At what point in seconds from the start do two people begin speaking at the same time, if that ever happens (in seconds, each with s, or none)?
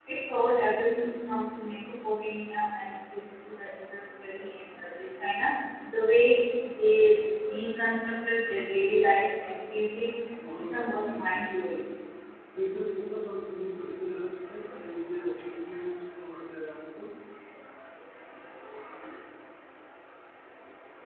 10.5 s